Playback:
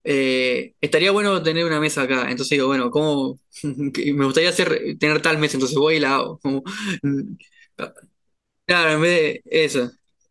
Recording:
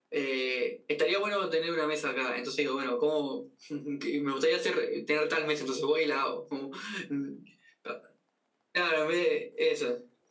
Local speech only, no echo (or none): none